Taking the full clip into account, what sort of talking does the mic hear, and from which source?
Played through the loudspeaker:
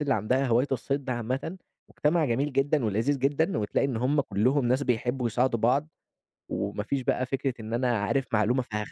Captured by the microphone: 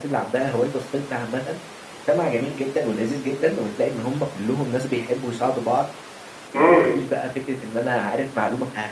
both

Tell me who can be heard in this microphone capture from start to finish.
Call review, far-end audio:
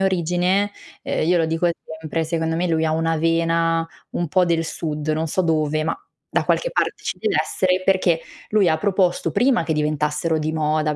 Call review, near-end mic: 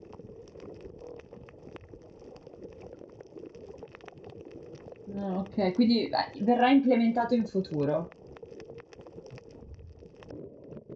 user only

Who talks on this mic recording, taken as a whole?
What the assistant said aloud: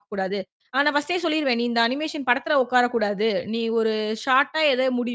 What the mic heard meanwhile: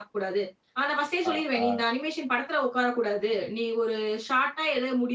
both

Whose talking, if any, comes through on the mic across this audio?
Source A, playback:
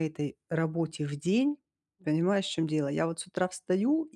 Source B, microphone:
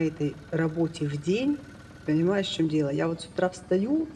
echo only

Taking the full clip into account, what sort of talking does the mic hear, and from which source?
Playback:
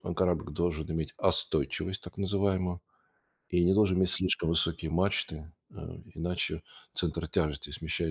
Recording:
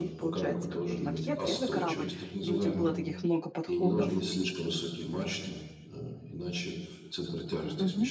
both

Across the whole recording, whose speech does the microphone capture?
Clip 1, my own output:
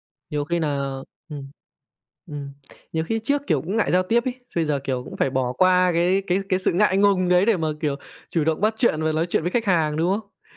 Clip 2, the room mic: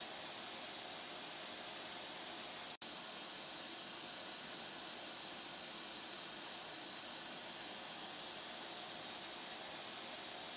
neither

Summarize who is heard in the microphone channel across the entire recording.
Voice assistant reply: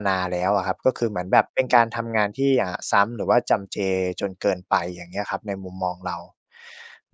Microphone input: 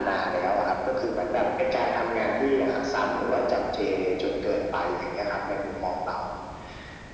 echo only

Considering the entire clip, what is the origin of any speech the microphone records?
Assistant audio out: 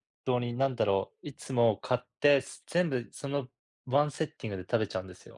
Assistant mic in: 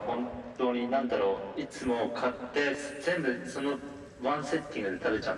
both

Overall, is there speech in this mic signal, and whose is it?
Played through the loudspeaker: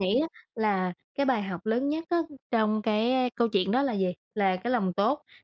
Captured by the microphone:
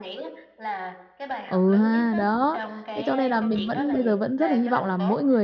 both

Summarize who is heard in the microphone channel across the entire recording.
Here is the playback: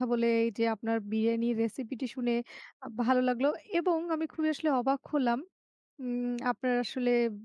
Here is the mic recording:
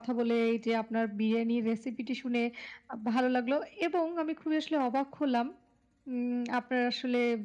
echo only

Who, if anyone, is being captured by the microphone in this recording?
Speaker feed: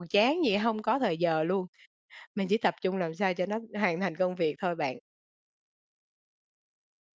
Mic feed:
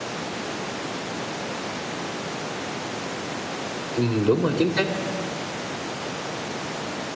user only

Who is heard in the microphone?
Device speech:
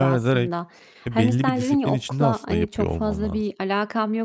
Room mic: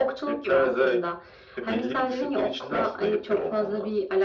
echo only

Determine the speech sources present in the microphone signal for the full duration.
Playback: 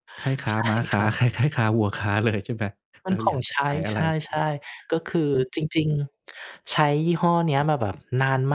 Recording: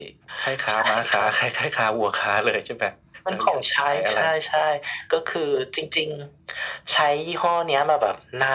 echo only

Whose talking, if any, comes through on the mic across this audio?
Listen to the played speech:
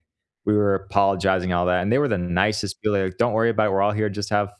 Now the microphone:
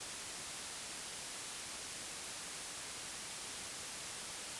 neither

